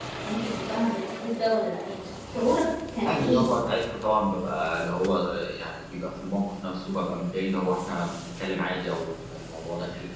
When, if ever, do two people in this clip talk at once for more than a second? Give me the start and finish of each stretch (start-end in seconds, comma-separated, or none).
none